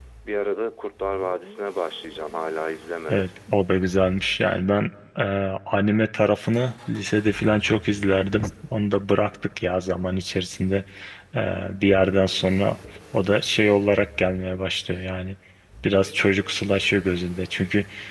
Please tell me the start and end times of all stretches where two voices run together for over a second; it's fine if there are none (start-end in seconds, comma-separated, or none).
none